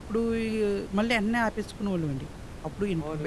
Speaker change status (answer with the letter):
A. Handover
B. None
A